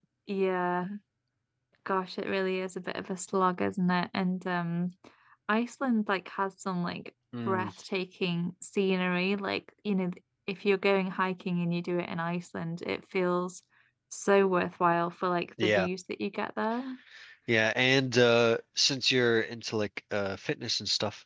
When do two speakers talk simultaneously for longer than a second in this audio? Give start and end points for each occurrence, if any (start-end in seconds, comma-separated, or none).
none